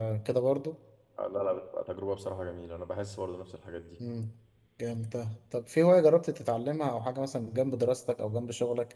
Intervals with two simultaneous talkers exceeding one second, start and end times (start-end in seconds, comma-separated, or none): none